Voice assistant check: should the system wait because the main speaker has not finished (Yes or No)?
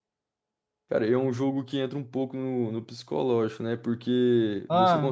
Yes